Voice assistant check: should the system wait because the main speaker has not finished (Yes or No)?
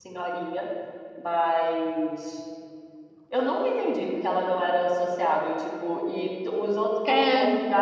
Yes